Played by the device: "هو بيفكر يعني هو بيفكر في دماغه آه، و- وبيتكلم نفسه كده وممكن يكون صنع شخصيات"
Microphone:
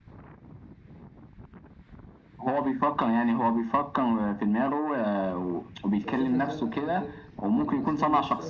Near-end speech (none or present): present